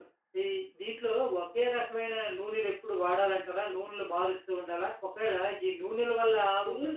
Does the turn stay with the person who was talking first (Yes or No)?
Yes